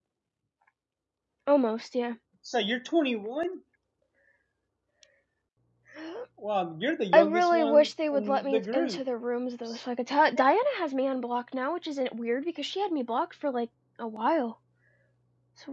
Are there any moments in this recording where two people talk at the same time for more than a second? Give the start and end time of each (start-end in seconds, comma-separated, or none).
7.1-9.0